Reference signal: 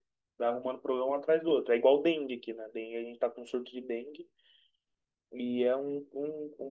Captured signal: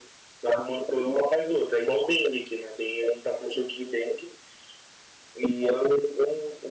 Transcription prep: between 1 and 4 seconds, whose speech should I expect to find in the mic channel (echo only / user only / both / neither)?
echo only